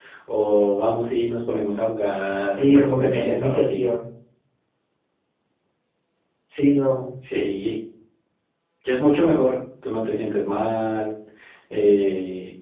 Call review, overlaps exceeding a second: present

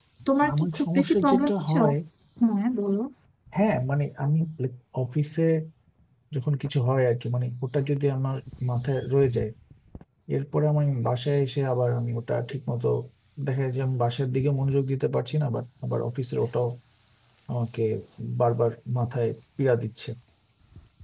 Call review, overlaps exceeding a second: present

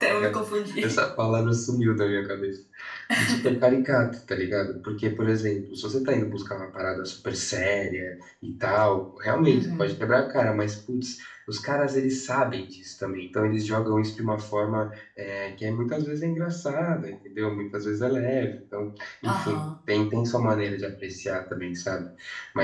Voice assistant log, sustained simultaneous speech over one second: none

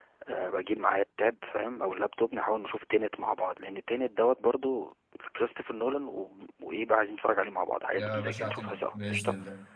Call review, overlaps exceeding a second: present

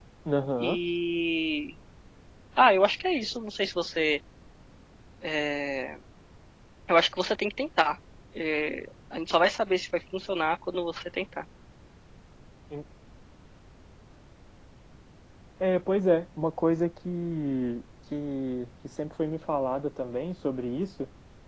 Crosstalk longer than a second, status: none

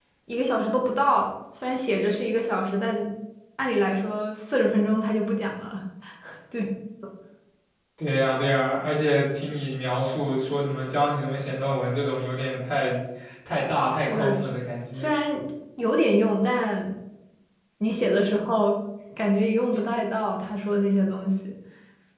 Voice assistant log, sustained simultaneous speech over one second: none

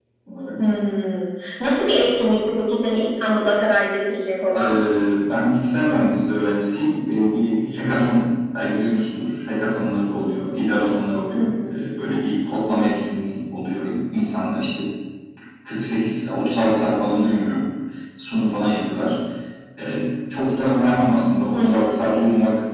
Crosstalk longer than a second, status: none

